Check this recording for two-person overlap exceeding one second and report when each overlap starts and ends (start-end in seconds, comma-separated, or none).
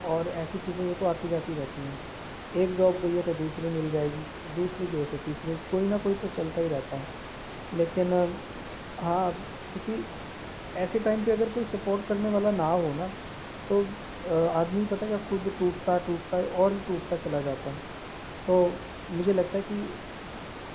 none